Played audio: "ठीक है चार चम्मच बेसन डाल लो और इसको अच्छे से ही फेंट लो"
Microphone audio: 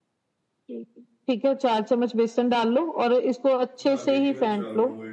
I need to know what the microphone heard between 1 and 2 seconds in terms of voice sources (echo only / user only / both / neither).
echo only